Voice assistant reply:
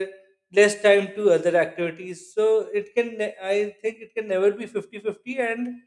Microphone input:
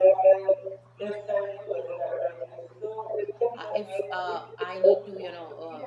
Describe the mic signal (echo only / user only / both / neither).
both